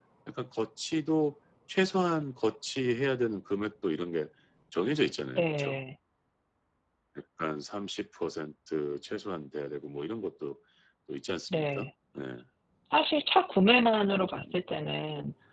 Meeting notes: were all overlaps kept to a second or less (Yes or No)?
Yes